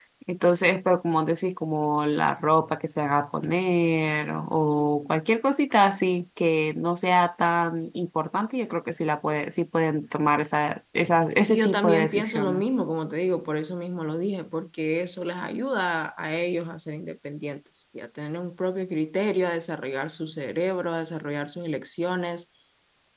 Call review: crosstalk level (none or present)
present